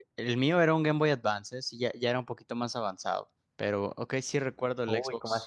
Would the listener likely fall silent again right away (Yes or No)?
No